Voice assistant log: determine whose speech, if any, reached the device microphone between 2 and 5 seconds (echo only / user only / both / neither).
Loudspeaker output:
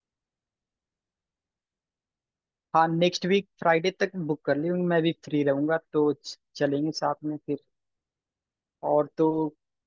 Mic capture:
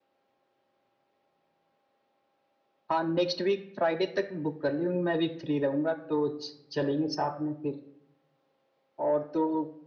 echo only